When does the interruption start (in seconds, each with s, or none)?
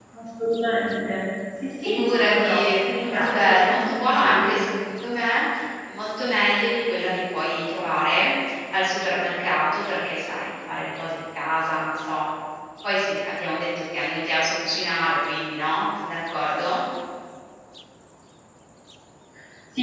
1.8 s